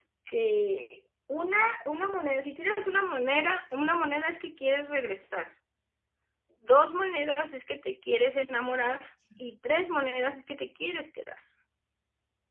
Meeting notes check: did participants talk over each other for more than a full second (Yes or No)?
No